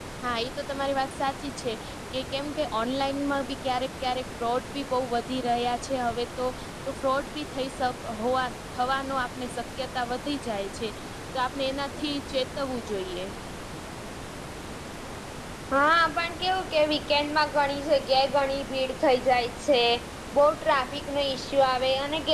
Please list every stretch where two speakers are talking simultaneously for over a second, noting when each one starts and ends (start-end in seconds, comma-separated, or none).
none